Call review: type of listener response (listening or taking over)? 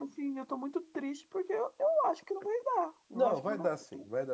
taking over